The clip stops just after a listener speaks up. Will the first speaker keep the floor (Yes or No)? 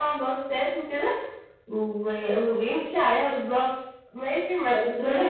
No